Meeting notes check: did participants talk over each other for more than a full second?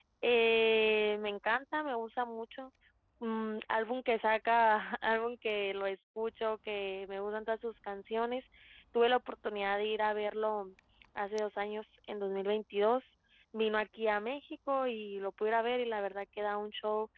No

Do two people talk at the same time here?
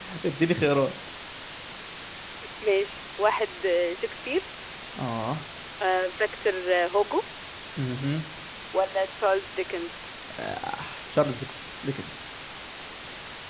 No

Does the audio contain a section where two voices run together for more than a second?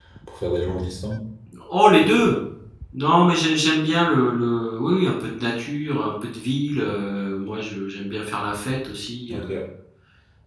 No

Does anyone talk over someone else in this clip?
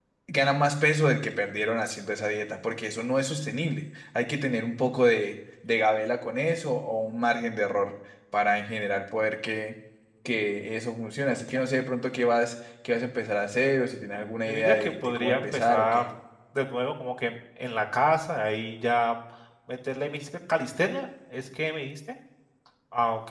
Yes, from 14.4 s

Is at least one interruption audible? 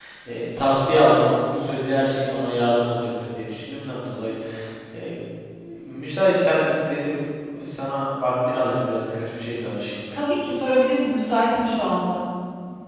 No

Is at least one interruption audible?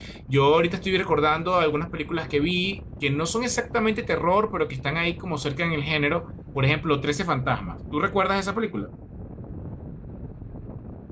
No

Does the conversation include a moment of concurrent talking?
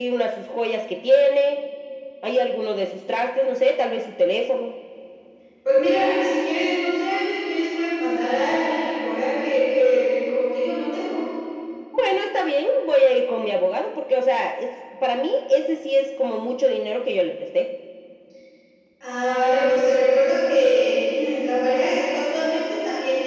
No

